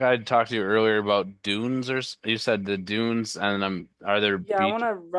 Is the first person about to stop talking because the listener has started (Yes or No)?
Yes